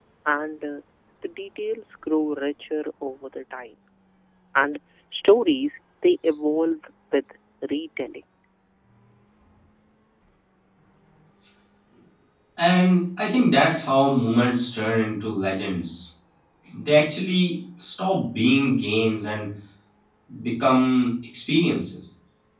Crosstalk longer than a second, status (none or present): none